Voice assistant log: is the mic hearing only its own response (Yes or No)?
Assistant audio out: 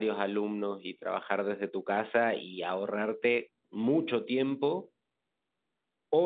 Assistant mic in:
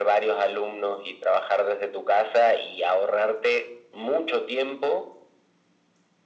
Yes